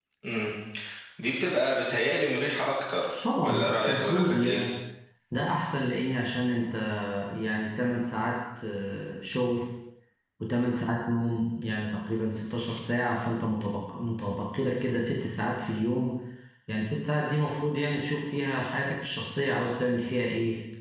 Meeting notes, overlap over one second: present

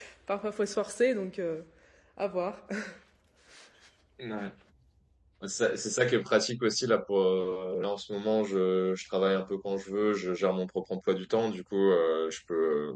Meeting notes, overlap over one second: none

